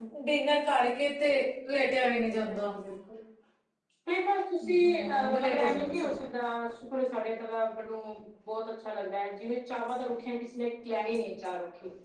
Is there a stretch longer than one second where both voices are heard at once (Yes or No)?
Yes